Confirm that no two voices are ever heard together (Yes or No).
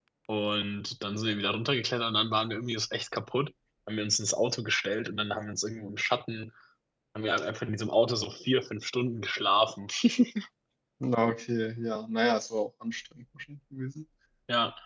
Yes